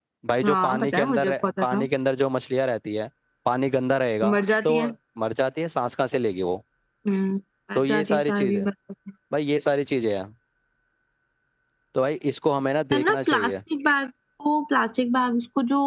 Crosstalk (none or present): present